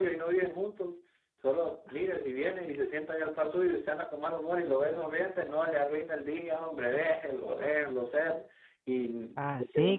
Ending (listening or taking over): taking over